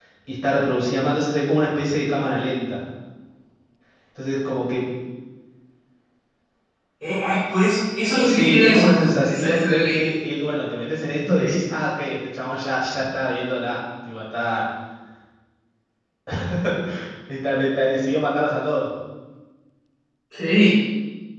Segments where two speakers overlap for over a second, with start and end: 8.2-10.0

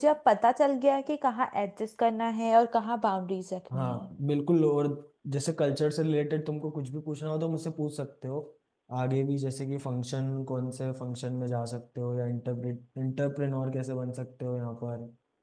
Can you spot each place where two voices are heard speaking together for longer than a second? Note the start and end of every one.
none

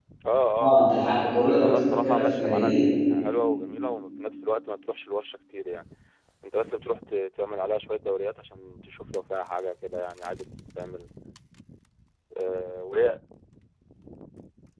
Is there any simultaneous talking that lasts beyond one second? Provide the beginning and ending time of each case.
0.6-2.7

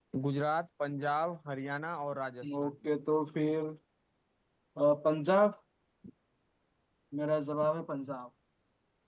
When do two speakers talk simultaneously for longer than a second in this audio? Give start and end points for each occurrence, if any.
none

